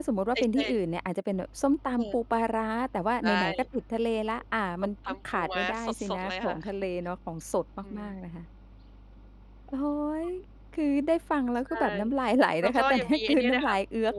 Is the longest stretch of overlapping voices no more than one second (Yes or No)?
No